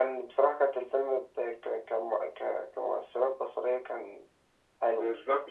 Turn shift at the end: Yes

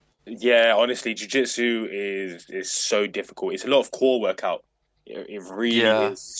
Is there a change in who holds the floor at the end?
No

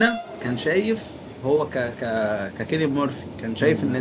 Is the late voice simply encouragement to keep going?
Yes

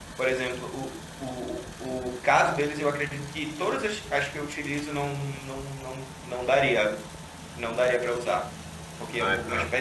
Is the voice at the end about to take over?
No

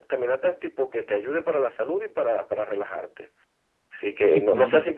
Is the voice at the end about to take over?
No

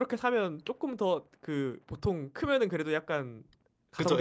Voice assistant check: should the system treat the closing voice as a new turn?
Yes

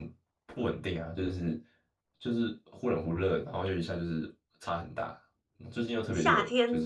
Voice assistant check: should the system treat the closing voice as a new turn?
Yes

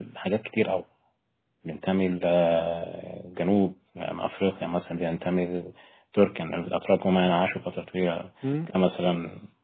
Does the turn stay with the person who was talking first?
Yes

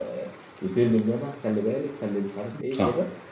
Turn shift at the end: No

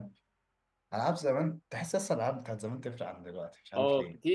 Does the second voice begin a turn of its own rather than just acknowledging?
Yes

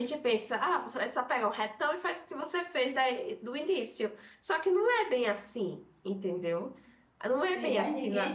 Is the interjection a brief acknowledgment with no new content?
No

